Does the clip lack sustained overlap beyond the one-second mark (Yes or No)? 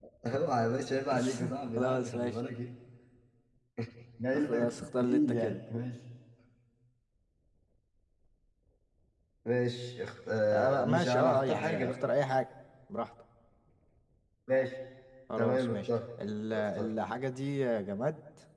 No